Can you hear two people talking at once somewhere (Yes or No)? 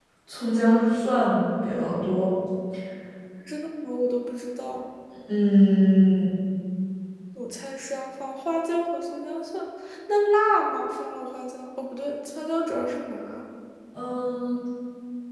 No